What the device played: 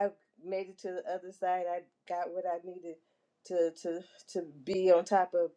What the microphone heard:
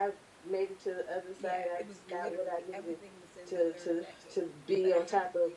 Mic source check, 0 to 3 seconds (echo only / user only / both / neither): both